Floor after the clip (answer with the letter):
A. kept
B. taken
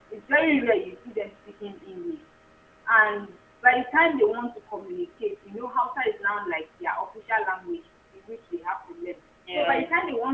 A